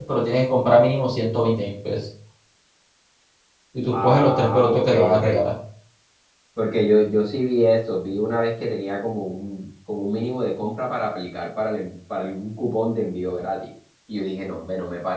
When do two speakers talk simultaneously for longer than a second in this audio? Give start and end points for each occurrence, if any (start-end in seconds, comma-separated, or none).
3.9-5.2